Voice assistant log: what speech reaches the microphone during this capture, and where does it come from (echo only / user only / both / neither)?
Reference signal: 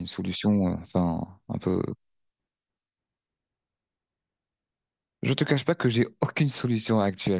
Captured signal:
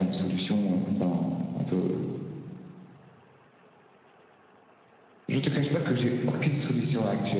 echo only